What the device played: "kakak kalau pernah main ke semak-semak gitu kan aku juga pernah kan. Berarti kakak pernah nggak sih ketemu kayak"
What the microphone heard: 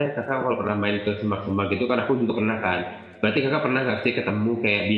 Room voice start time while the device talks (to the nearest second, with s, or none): none